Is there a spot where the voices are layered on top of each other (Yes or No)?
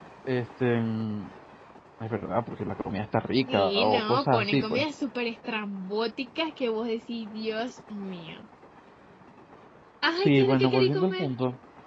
Yes